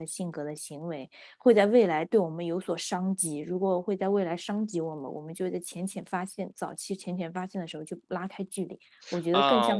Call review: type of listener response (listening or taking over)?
taking over